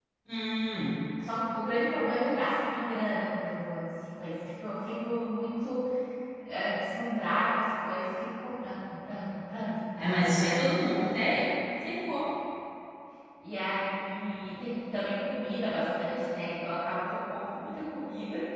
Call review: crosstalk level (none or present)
none